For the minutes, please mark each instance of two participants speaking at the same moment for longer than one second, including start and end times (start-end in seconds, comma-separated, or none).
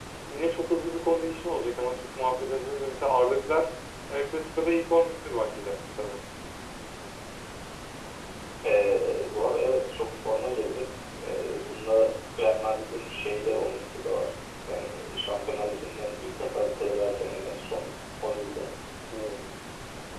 none